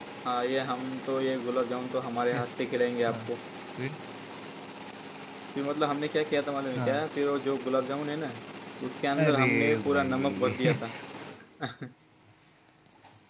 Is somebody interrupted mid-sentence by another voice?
Yes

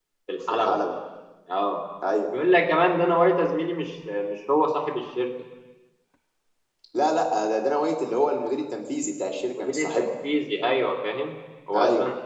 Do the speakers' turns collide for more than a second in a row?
No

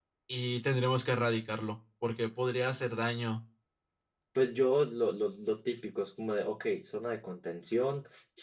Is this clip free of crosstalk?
Yes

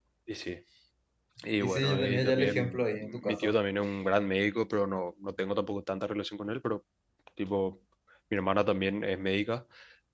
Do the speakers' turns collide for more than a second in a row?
Yes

